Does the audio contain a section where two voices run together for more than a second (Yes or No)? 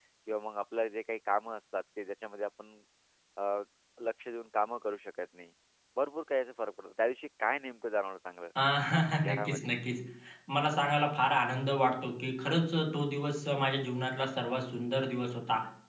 No